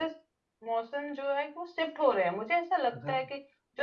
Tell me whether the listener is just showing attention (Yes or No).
Yes